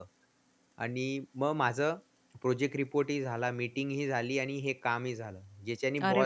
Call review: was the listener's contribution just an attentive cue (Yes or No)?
No